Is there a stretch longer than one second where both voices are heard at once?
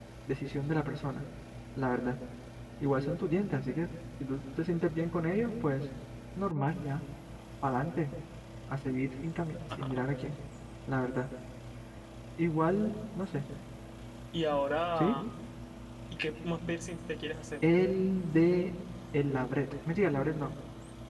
No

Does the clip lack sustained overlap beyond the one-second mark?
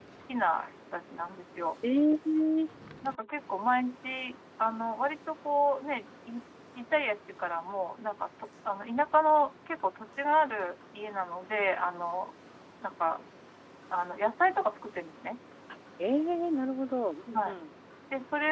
Yes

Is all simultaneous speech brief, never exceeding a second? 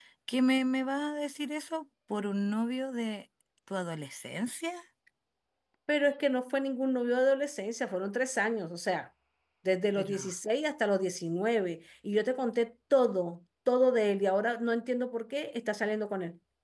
Yes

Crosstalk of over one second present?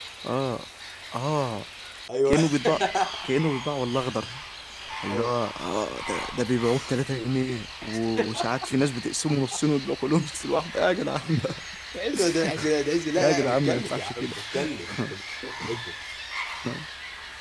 Yes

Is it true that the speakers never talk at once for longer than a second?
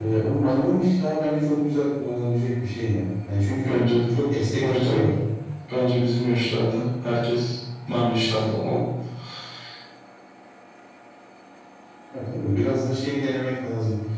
Yes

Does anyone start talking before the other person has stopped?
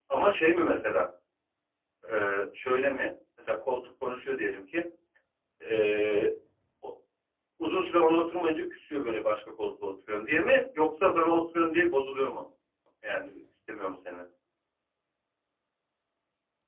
No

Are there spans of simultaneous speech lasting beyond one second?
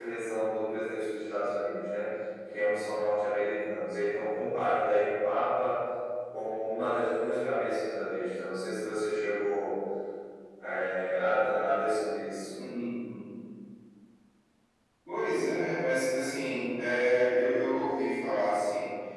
No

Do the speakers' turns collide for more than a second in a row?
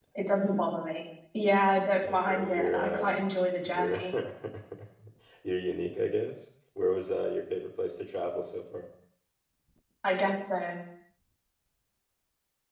Yes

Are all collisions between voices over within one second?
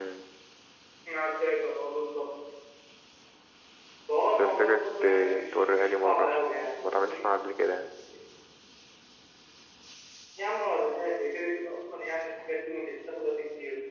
No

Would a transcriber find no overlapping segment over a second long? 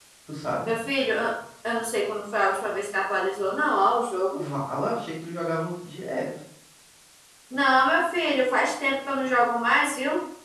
Yes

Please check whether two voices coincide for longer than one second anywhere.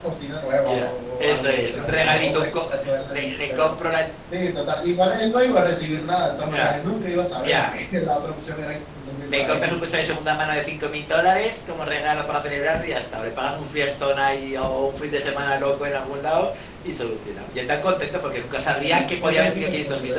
Yes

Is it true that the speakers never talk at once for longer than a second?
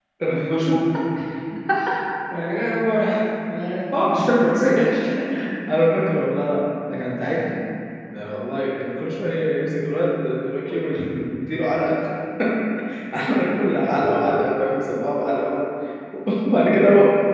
Yes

